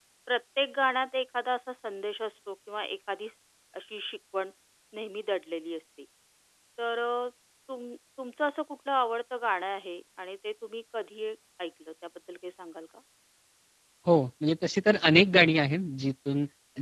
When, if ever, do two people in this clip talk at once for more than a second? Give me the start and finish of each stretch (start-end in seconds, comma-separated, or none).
none